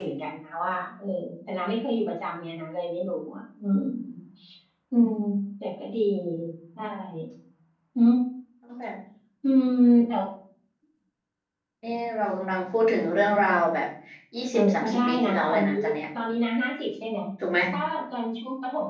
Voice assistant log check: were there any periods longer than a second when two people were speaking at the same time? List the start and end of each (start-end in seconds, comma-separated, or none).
14.5-15.8